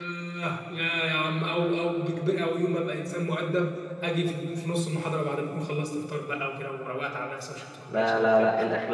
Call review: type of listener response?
taking over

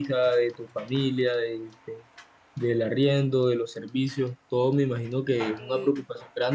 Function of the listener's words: listening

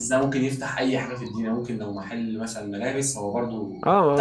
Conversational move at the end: taking over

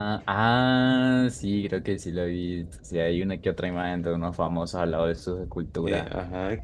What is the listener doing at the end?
taking over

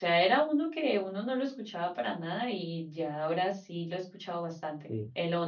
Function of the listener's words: taking over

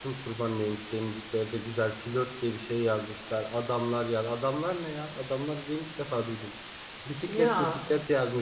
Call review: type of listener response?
listening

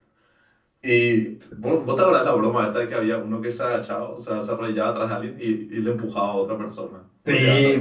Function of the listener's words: taking over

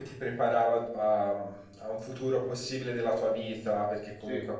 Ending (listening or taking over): listening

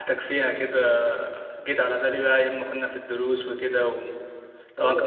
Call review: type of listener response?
taking over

